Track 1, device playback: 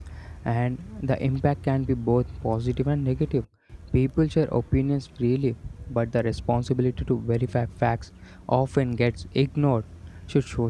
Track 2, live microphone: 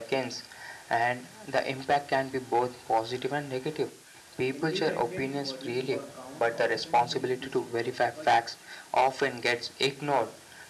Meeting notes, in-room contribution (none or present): present